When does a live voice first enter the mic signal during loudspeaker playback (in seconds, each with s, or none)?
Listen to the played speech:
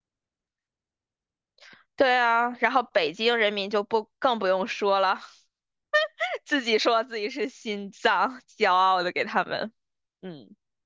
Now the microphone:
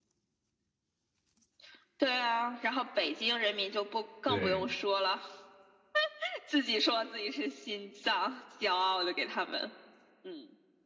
4.2 s